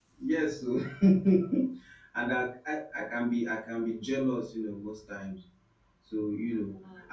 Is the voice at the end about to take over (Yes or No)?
No